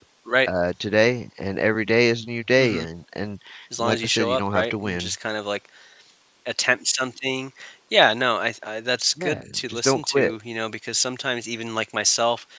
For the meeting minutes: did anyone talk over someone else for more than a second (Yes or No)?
Yes